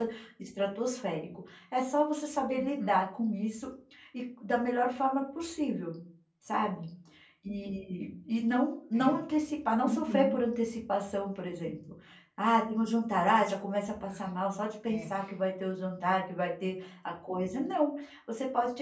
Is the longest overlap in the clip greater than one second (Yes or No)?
No